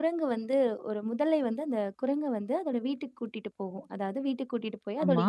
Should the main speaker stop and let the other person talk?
No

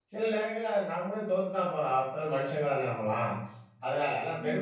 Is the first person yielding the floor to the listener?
No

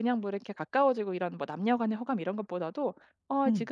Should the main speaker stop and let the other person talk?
No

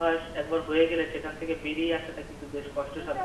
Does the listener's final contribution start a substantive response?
Yes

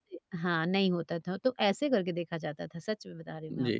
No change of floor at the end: No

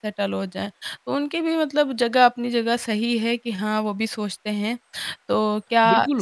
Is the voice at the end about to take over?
Yes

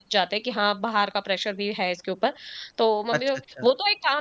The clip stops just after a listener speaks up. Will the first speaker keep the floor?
Yes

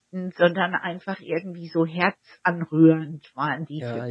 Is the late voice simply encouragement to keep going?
No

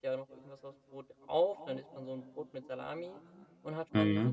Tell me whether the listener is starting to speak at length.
No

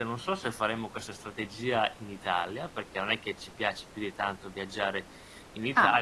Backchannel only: Yes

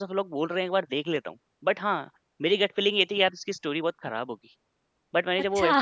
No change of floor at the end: Yes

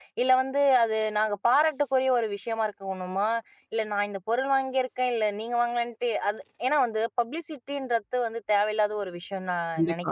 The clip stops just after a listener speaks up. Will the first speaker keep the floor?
No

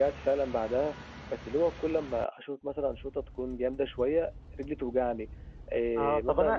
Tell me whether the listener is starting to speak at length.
Yes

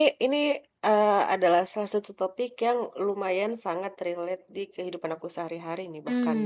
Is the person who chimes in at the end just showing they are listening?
No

